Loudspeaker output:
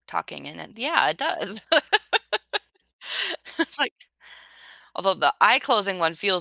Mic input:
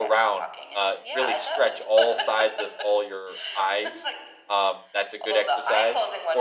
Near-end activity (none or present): present